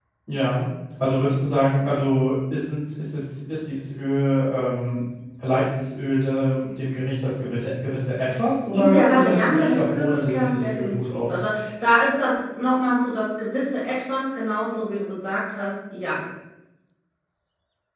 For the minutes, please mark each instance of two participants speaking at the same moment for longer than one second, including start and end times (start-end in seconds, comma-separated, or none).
8.7-11.4